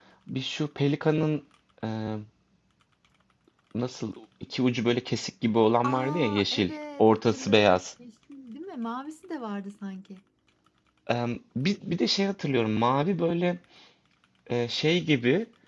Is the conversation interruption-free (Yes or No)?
No